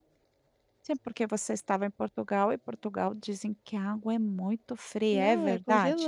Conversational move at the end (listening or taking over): taking over